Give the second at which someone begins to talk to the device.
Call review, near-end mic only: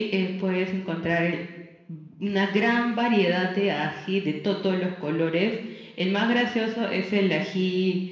none

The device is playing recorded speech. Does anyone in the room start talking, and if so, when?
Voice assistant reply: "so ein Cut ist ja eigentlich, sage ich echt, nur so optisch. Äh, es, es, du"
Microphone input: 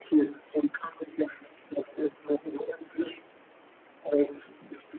none

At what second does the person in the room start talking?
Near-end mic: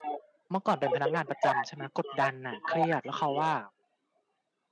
0.5 s

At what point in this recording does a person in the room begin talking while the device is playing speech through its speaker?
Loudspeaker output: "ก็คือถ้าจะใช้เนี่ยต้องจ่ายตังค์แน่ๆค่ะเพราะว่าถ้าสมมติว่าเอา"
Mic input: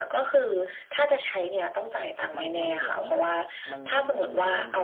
2.4 s

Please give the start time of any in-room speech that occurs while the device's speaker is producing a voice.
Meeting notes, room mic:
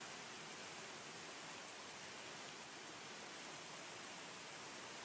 none

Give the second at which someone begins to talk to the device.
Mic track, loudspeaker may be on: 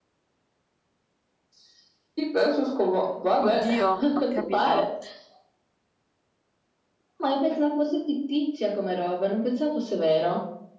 3.4 s

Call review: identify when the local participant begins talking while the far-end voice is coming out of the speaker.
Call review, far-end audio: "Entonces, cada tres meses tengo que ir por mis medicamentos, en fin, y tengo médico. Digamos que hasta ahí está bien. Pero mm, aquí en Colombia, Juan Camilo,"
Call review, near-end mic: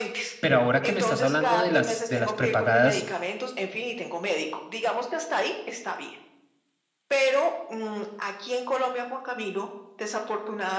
0.4 s

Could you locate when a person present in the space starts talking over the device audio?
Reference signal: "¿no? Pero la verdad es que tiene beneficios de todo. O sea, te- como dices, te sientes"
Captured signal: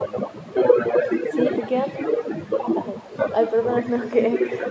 1.2 s

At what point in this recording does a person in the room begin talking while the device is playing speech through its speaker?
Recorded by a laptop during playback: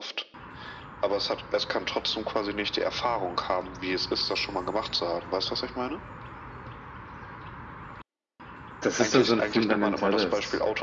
8.8 s

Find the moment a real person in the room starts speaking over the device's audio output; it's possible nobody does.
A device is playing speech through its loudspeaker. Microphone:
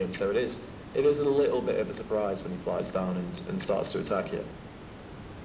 none

